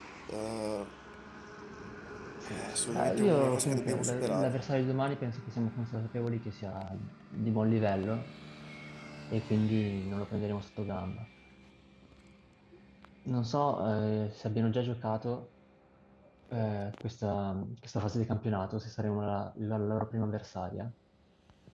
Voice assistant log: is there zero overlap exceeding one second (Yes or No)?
No